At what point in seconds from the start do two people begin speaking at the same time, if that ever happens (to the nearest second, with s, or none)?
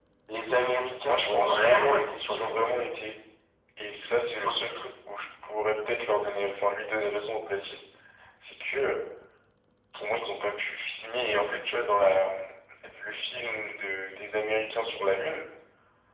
1 s